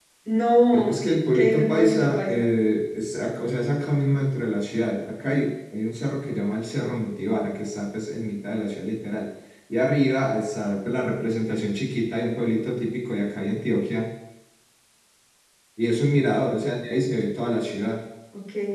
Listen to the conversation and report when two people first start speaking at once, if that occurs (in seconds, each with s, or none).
0.7 s